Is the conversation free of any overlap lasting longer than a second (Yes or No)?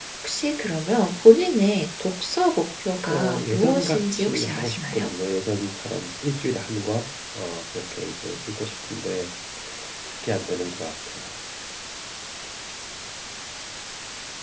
No